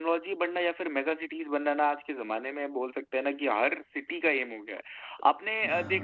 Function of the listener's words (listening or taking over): listening